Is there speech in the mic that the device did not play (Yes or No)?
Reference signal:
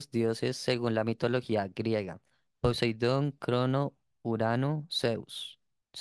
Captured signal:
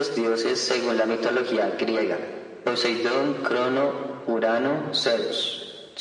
No